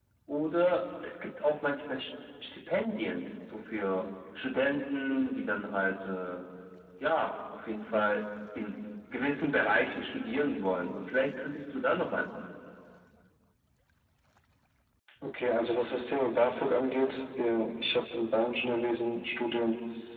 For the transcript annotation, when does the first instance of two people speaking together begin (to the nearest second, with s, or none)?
none